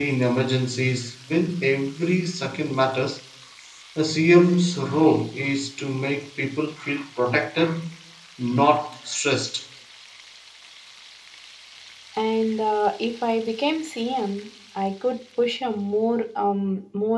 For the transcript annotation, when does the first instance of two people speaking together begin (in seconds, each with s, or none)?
none